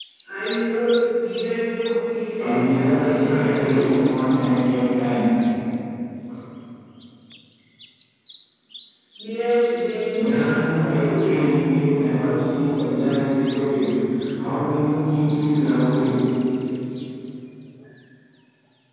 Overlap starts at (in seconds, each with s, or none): 2.4 s